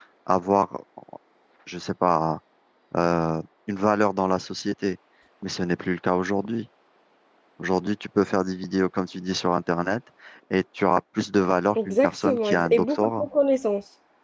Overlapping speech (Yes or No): Yes